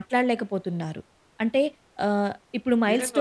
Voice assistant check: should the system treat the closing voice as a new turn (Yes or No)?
Yes